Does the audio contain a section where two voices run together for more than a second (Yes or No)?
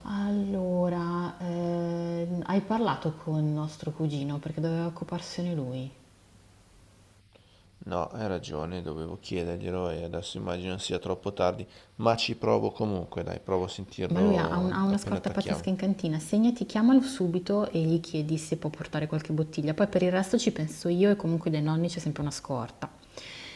Yes